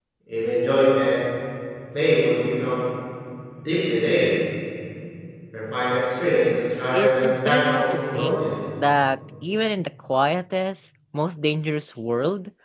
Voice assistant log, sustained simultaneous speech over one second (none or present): present